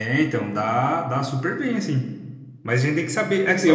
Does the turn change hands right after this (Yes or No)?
No